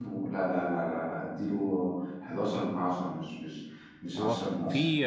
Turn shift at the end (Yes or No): Yes